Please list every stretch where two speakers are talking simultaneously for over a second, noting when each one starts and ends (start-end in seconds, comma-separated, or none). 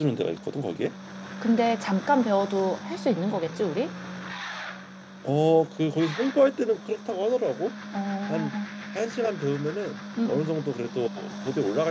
none